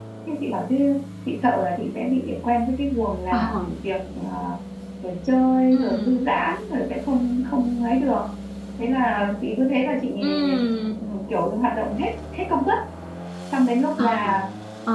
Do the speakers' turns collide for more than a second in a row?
No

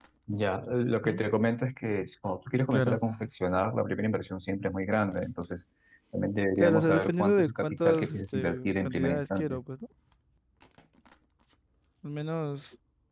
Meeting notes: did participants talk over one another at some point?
Yes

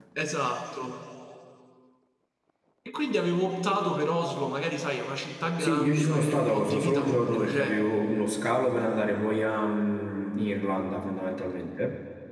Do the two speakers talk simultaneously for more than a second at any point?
Yes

